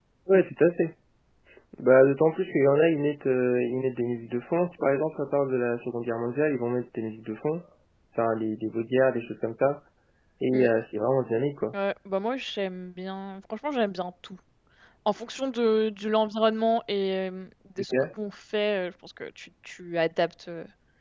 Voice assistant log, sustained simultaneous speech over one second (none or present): none